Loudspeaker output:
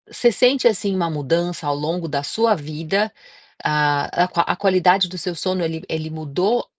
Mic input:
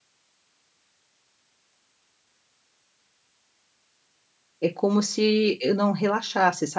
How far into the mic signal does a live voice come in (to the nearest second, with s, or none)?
5 s